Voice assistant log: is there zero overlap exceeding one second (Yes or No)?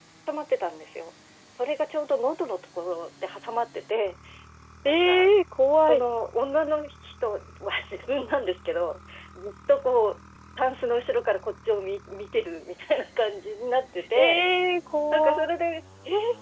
Yes